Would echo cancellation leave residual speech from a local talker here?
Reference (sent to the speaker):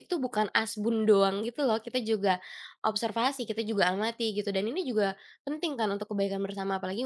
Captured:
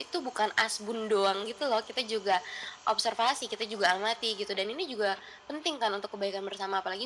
No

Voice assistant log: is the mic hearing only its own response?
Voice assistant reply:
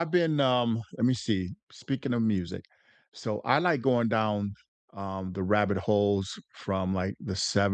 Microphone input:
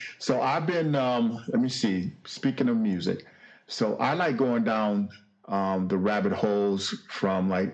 Yes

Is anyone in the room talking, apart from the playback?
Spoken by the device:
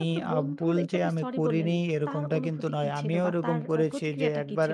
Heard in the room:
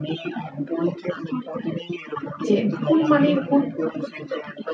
Yes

